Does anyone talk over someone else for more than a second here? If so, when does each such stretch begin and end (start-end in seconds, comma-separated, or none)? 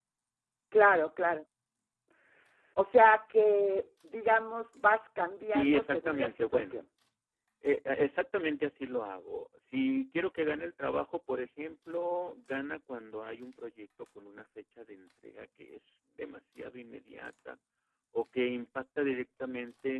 5.5-6.8